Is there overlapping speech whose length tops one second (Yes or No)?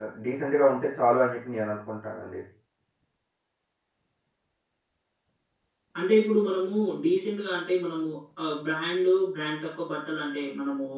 No